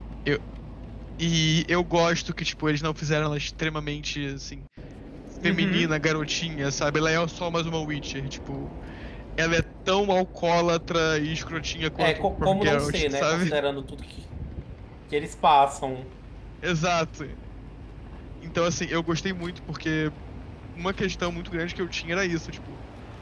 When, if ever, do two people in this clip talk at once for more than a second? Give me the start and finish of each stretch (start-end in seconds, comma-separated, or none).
12.0-13.6